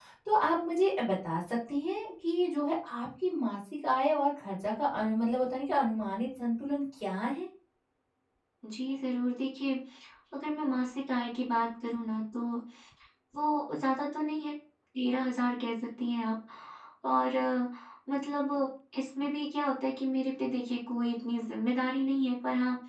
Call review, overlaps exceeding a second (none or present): none